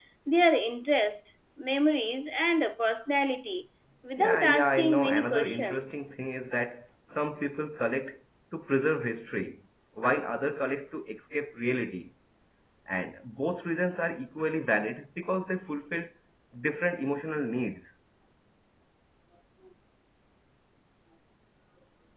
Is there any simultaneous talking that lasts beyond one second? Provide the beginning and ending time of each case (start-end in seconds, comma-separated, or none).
4.2-6.0